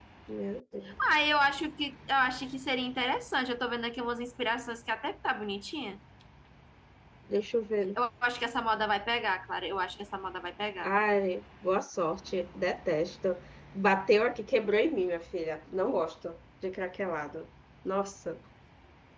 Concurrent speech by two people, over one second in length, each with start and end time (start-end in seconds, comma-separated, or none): none